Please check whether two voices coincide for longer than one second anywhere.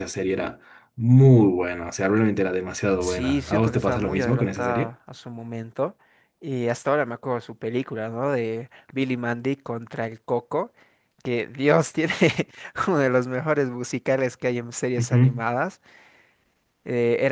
Yes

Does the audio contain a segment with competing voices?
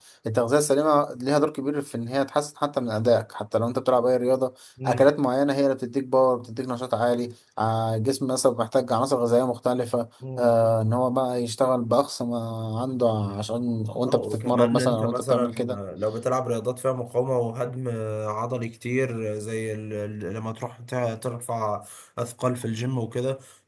Yes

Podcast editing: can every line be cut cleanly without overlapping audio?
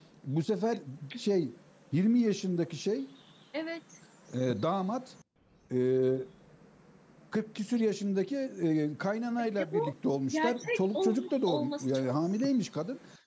No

